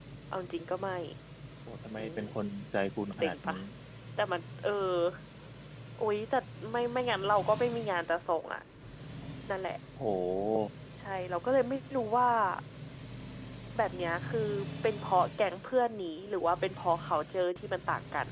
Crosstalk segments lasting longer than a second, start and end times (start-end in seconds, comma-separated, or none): none